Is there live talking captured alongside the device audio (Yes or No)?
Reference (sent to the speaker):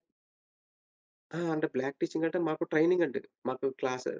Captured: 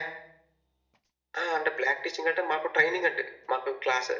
No